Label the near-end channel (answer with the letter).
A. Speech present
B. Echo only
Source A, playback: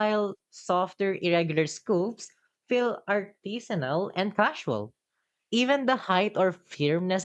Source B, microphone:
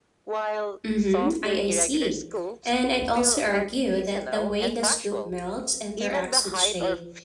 A